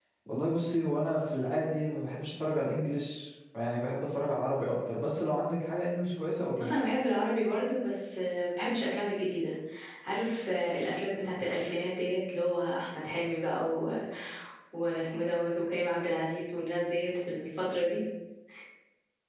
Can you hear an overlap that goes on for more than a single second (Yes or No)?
No